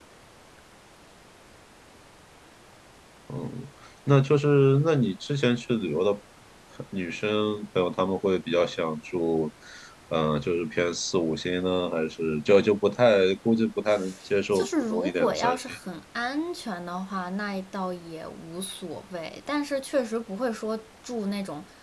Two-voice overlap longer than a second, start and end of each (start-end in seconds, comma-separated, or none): 14.5-15.8